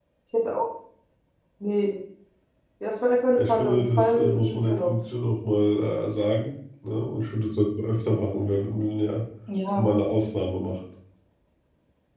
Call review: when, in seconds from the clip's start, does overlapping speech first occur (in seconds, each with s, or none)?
3.5 s